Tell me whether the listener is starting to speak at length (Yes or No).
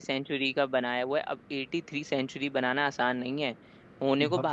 No